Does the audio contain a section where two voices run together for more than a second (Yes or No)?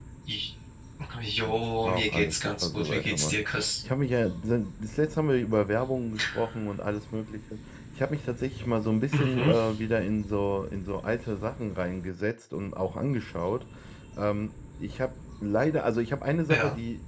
Yes